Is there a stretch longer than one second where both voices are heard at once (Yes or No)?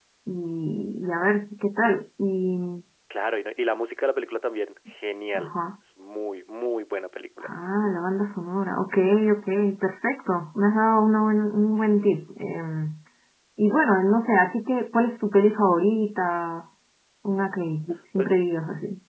No